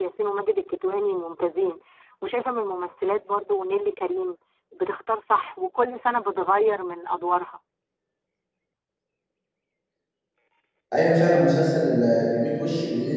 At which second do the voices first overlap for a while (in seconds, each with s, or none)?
none